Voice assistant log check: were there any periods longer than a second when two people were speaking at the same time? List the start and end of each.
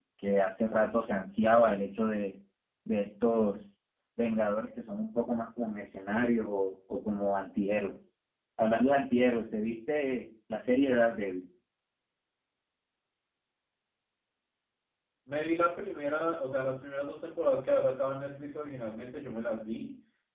none

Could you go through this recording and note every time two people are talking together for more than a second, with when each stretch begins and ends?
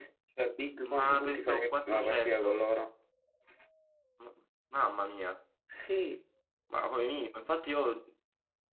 0.9-2.6

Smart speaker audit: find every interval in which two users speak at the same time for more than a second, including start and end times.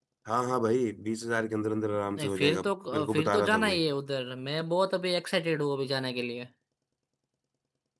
2.1-3.8

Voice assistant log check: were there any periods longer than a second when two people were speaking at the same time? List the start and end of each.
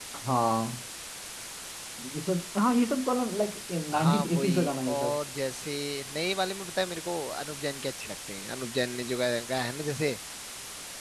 3.9-5.2

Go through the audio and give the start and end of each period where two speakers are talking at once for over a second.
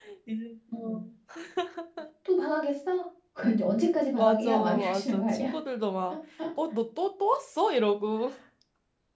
4.2-5.5

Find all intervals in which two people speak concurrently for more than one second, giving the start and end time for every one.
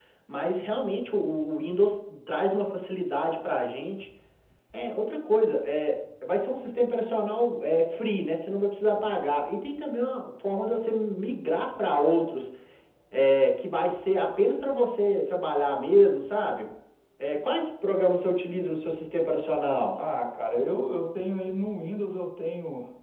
none

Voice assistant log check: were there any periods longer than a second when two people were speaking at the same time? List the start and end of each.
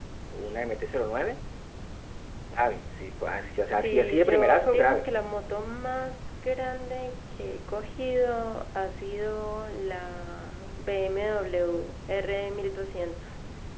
3.8-5.1

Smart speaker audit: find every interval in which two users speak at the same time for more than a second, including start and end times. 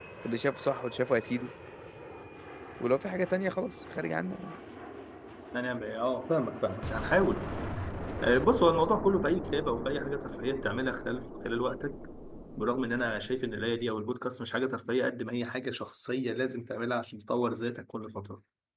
none

